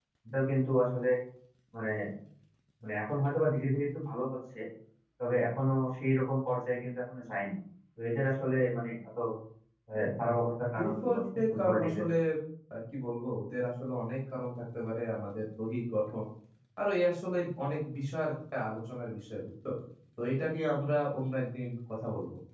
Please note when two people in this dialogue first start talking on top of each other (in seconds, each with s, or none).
10.8 s